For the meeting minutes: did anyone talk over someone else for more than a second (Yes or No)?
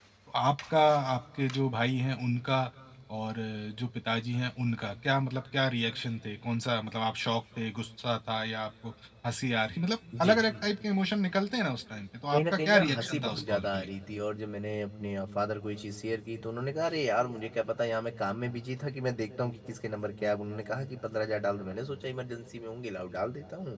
Yes